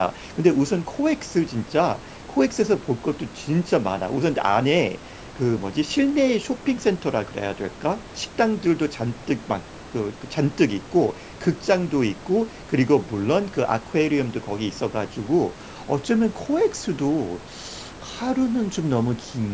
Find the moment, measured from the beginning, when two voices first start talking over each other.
none

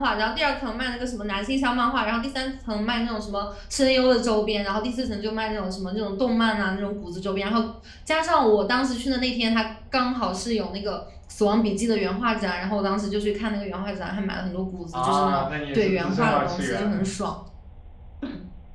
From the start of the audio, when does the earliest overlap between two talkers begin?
14.9 s

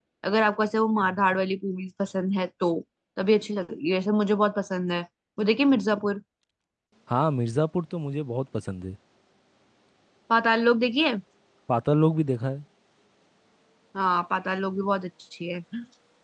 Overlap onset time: none

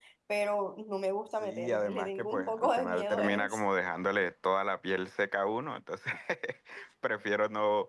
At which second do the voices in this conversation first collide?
1.4 s

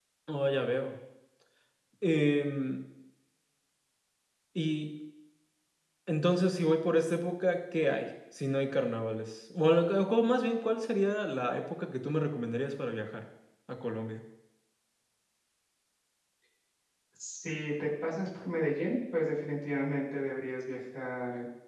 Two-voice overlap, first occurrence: none

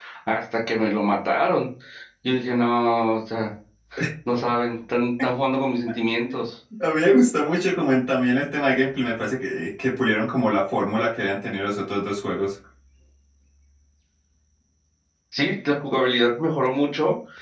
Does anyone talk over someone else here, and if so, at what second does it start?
none

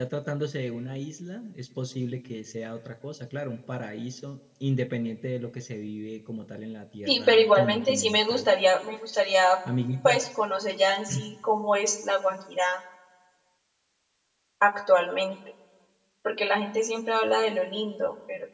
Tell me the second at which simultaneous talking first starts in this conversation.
7.1 s

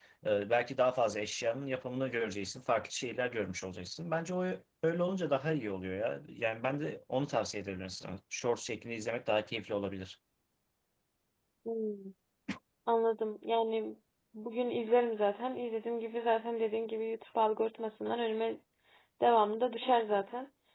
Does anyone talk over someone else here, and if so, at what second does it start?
none

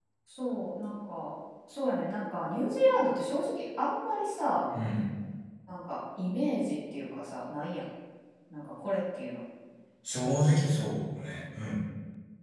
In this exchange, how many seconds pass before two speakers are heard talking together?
none

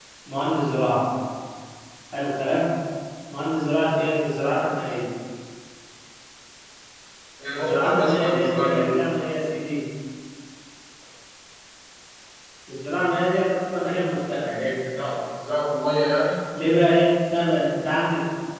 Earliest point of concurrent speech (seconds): 7.5 s

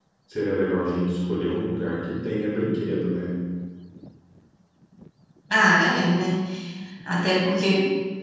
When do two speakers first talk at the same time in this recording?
none

